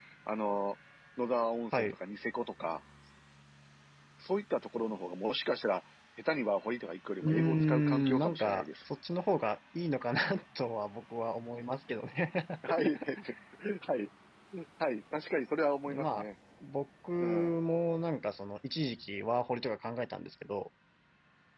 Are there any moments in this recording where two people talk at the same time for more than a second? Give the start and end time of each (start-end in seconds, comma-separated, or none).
7.2-8.7